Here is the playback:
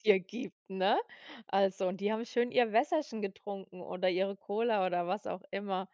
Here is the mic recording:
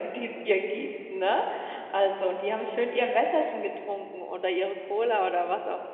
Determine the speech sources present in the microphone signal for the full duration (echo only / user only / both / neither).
echo only